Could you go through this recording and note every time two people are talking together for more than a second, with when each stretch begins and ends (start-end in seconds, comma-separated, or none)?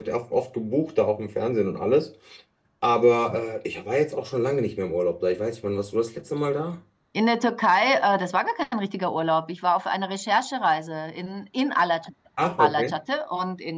none